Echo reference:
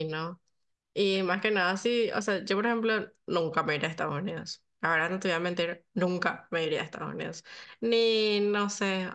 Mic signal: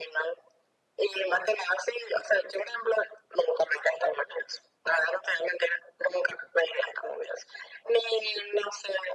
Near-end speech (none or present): none